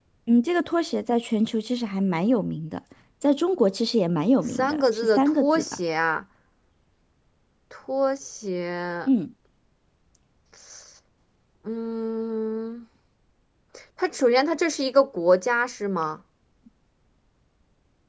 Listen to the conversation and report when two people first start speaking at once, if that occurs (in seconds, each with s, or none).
4.5 s